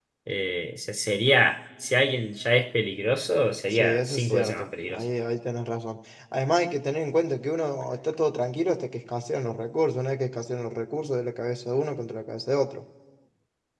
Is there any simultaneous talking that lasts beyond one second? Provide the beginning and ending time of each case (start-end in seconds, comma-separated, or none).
3.7-5.0